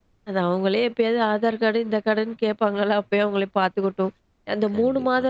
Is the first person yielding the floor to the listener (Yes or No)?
No